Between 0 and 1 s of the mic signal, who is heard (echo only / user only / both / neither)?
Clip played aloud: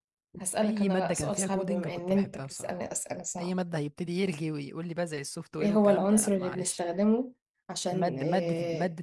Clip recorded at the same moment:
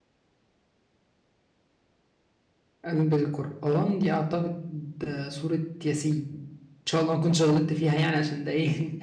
neither